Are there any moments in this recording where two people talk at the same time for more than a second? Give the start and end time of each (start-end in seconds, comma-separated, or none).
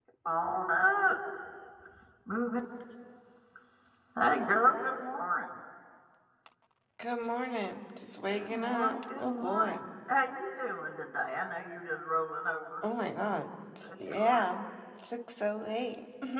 8.3-9.8